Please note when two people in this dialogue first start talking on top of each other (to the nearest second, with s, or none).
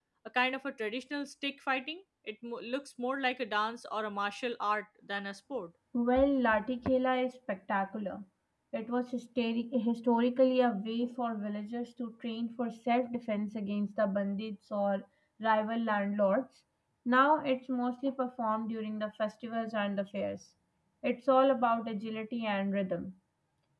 none